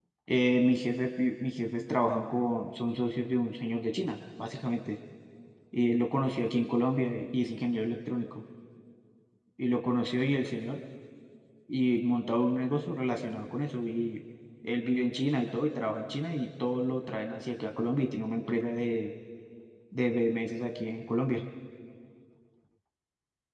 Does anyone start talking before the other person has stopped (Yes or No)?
No